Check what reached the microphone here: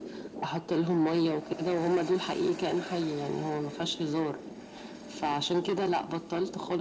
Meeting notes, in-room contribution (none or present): none